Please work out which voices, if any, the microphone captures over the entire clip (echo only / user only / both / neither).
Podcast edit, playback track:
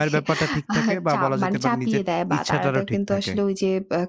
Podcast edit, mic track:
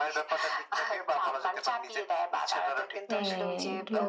both